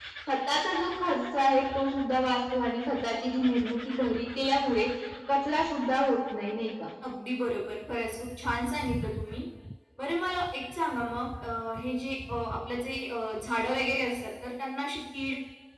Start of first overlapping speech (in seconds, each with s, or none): none